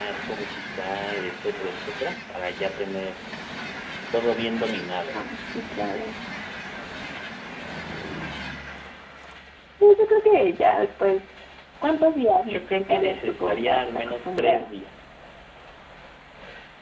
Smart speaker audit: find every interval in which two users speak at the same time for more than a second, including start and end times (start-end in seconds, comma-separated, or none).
12.5-14.7